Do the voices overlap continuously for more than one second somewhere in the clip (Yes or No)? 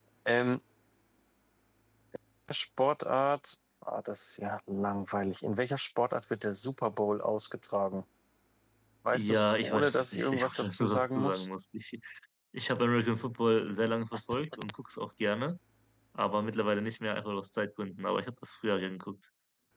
Yes